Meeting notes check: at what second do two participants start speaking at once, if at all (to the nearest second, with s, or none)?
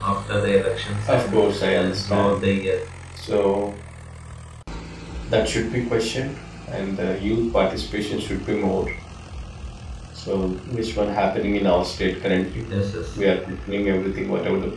1 s